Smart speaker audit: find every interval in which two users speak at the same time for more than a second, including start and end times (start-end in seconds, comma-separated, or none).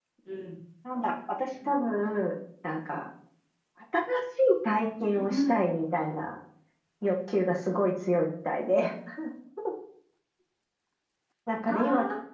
none